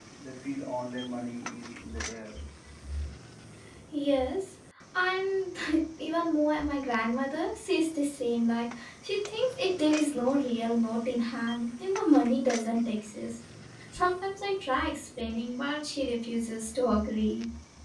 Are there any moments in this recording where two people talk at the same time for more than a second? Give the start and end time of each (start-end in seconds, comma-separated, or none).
none